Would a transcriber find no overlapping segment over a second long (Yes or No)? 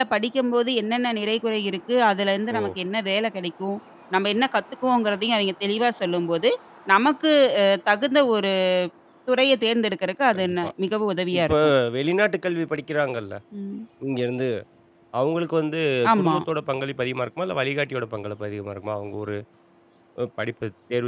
Yes